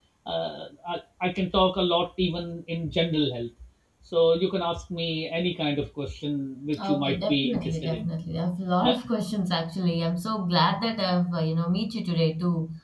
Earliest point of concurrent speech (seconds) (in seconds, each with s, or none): 6.7 s